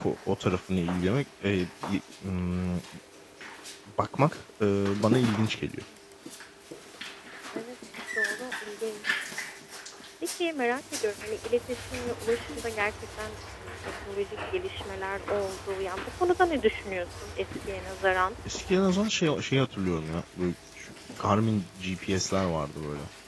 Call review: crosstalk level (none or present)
none